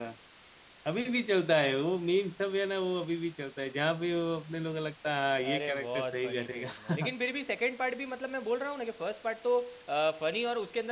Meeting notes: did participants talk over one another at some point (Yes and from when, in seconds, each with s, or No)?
Yes, from 5.4 s